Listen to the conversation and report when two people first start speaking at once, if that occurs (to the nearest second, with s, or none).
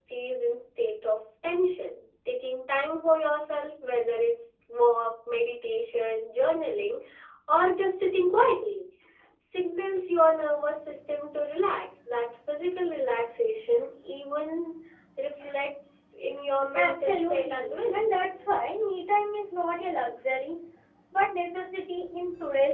17 s